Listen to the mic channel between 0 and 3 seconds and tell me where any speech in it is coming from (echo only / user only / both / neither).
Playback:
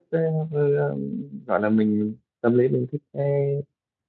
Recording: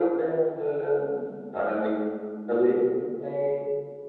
echo only